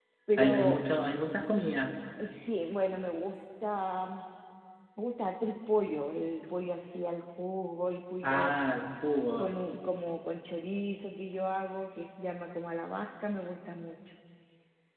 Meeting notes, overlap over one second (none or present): none